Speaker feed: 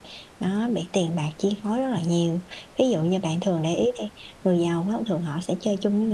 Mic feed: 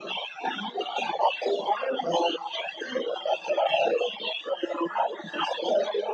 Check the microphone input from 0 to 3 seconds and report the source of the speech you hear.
echo only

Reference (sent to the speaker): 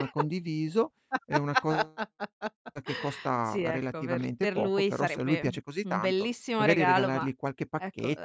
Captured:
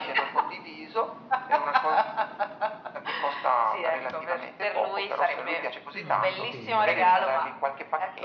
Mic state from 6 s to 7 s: both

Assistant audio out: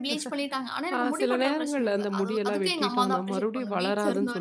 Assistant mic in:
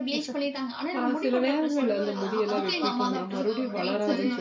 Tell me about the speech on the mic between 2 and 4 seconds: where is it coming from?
both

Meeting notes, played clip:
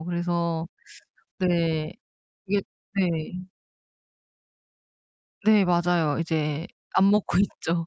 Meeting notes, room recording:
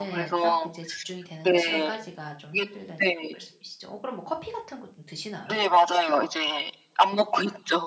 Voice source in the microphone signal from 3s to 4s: both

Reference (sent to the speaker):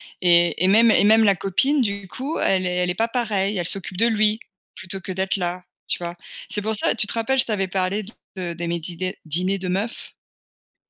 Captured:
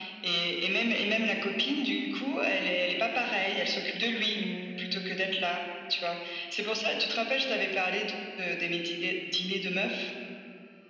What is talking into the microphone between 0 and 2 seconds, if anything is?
echo only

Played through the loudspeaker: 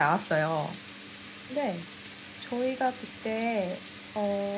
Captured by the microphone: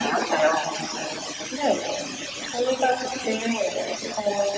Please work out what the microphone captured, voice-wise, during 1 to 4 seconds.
echo only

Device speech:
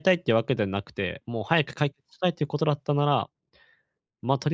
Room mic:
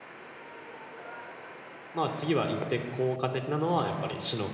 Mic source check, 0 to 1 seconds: neither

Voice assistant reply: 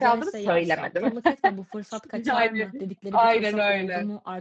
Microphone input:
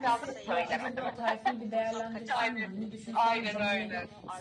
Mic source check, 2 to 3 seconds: both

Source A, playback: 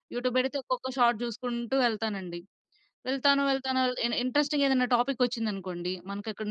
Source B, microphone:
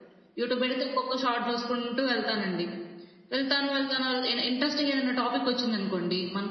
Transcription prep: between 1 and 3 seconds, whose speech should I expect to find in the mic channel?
echo only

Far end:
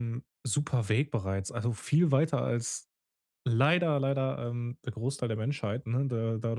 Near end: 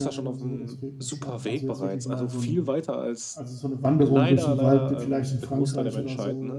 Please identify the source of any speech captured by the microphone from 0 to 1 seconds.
both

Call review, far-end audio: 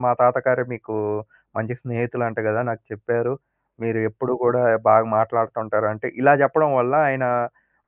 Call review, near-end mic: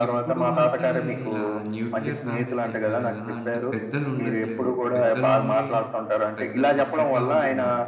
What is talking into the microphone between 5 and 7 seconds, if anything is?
both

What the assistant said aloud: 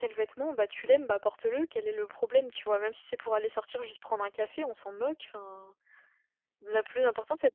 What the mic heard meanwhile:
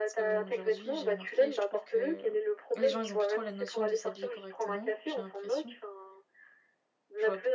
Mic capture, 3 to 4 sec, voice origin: both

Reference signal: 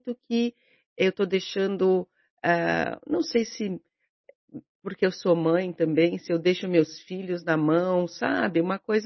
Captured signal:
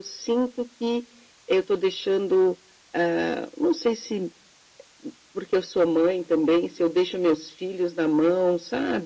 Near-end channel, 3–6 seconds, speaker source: echo only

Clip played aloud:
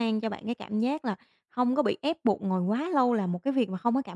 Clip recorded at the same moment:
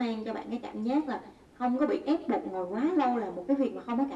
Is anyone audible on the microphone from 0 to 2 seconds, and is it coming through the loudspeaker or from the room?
echo only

